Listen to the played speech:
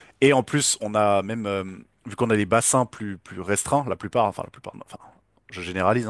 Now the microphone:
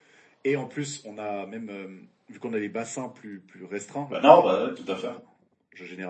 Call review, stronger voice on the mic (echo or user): user